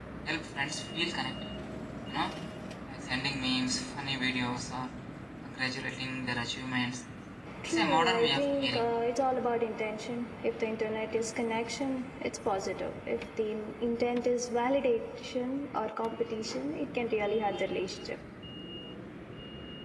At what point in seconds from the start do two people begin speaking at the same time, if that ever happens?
7.7 s

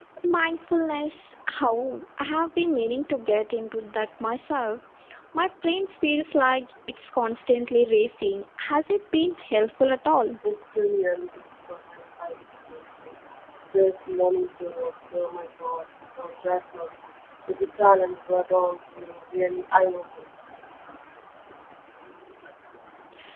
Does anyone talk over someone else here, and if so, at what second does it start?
none

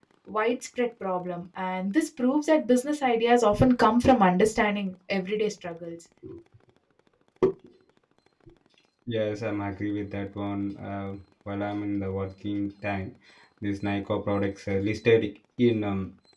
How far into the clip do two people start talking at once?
none

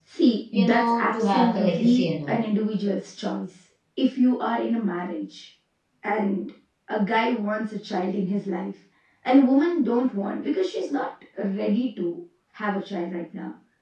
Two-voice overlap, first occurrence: 0.6 s

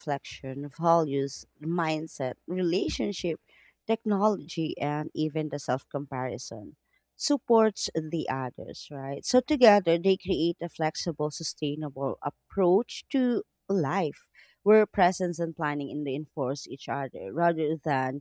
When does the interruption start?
none

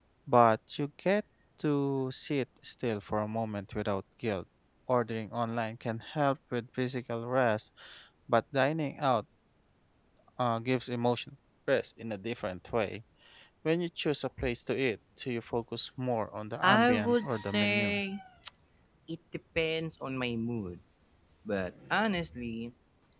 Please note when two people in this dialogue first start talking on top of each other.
16.6 s

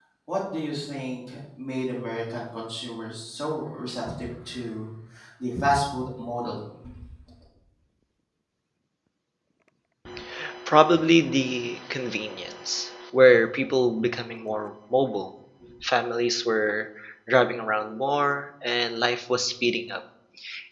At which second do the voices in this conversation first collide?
none

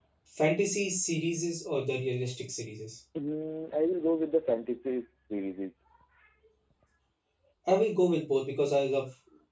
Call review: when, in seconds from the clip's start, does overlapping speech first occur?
none

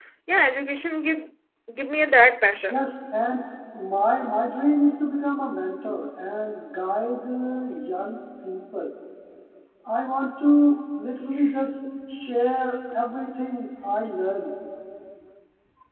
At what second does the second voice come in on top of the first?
none

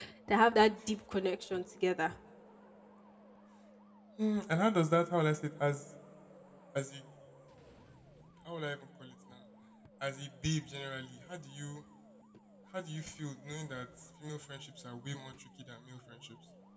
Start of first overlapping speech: none

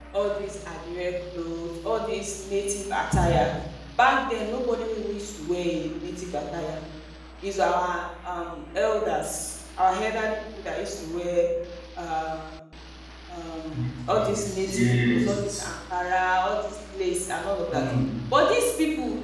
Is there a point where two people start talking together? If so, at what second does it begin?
14.1 s

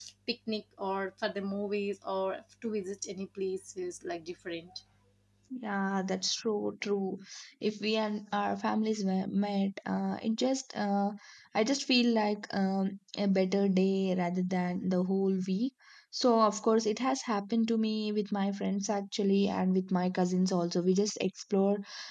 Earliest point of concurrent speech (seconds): none

